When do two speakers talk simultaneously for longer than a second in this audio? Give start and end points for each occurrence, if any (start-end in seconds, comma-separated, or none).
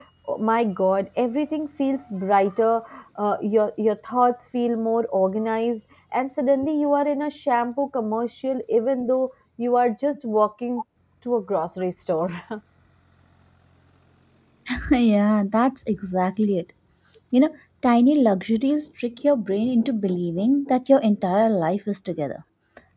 none